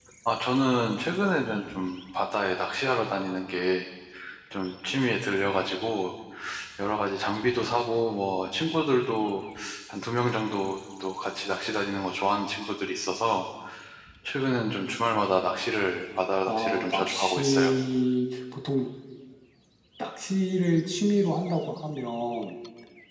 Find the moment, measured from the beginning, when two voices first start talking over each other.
16.5 s

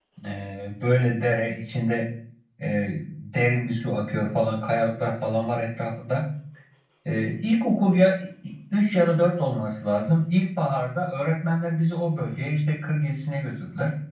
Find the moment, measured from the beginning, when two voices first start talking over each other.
none

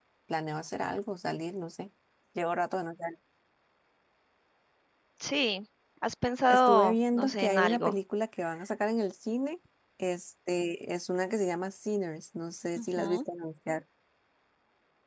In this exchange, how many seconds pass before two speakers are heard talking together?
6.5 s

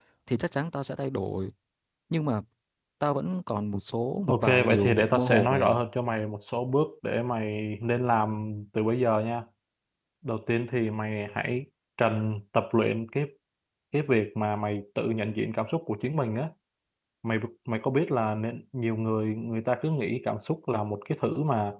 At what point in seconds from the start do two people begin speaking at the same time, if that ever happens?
4.3 s

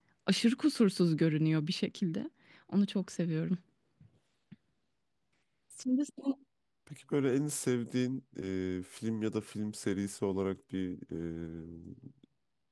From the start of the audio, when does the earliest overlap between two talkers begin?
none

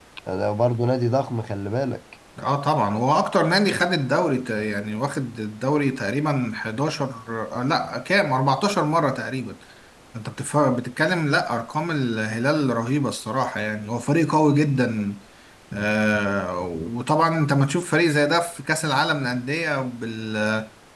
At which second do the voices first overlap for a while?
none

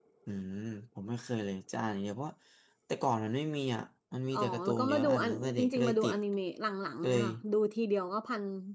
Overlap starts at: 4.3 s

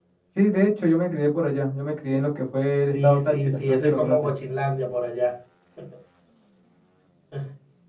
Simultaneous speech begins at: 2.9 s

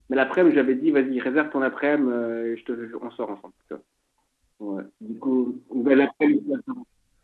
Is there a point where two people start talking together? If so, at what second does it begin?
none

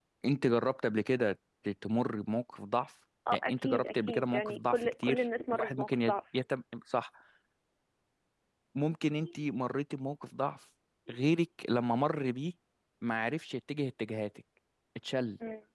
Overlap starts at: 3.3 s

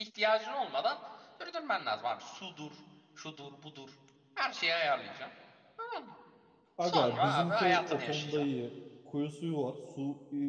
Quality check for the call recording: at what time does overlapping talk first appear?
6.8 s

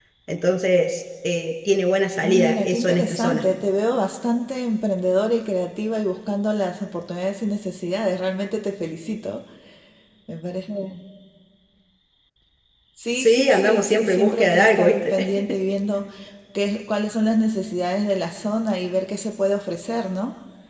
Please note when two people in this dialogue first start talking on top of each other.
2.2 s

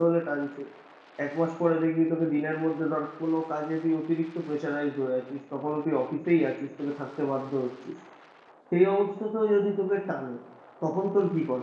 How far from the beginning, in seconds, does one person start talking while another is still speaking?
none

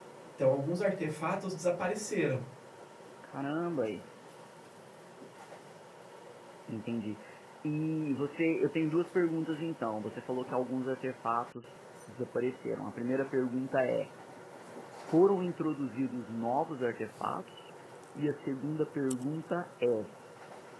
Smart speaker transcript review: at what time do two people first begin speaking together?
none

